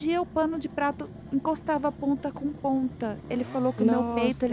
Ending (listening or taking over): listening